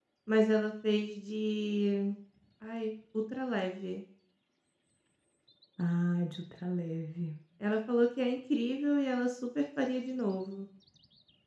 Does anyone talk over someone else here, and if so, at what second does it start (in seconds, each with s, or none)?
none